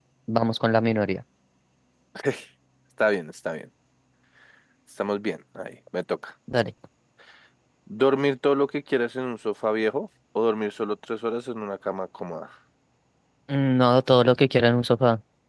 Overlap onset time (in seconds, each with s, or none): none